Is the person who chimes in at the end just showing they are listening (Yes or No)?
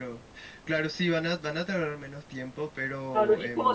No